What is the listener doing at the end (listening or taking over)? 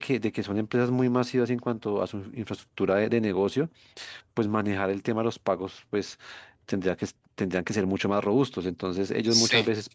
listening